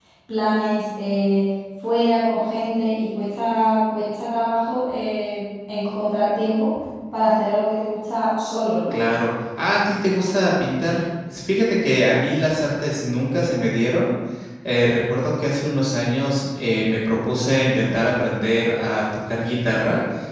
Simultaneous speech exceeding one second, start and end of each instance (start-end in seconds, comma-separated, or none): none